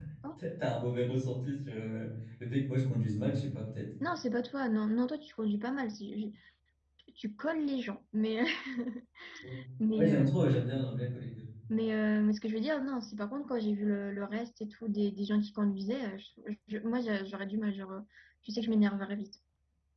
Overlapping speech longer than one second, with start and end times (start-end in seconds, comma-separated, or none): none